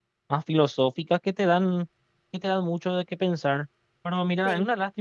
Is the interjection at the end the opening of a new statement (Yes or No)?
No